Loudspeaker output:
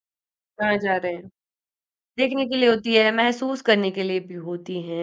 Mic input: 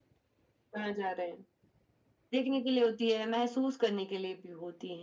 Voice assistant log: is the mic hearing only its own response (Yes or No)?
Yes